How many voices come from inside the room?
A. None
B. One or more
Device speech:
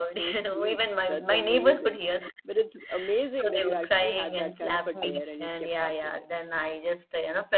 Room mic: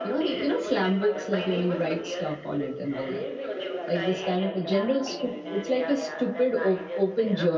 B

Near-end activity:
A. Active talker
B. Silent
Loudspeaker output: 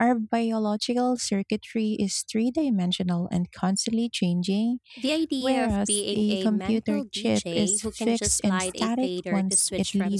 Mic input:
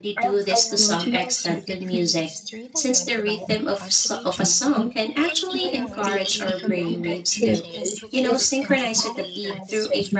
A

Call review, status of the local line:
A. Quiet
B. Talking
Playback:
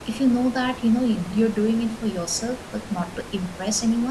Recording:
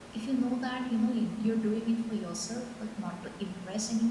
A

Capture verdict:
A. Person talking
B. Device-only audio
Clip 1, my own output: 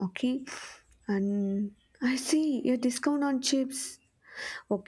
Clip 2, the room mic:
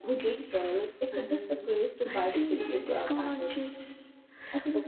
A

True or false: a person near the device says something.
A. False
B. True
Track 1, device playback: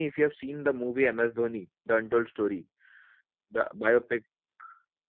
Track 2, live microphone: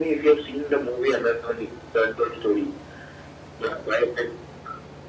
A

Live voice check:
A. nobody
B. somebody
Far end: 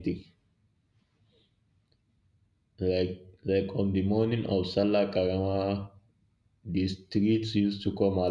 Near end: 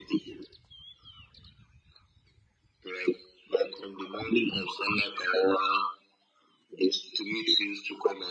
A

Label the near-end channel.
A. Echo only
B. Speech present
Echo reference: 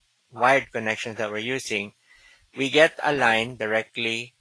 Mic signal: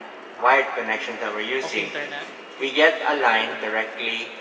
B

